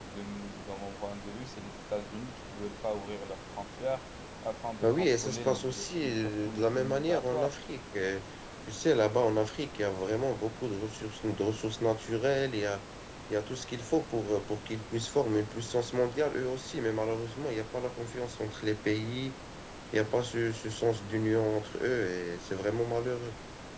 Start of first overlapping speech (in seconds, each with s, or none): 4.8 s